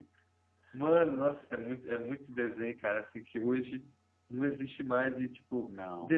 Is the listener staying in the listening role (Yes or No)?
Yes